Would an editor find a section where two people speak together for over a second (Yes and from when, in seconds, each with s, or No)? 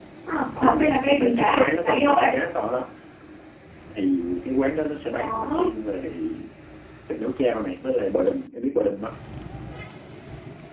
Yes, from 0.6 s